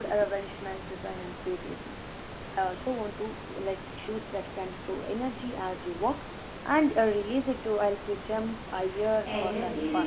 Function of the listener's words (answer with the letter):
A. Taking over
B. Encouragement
A